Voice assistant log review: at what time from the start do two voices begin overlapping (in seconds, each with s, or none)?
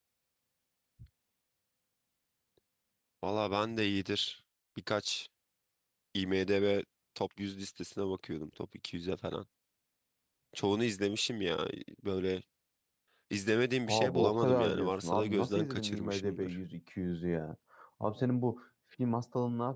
13.9 s